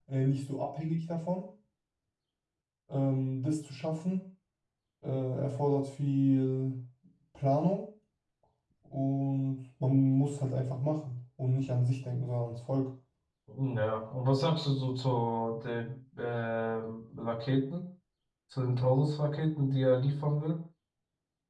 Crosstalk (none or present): none